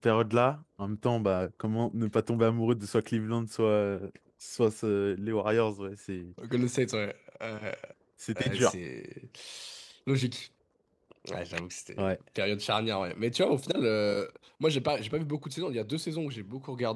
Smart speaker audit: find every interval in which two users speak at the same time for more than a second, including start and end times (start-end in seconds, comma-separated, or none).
none